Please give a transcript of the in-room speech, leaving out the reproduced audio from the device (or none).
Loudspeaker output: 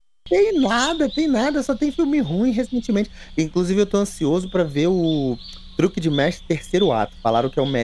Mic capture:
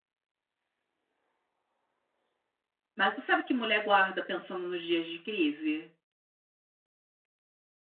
mas tu sabe que mulher guarda pensando nos dias de crise?